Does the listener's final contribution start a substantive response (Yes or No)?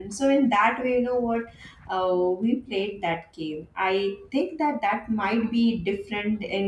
No